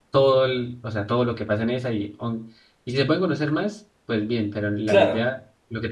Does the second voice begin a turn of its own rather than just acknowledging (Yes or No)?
No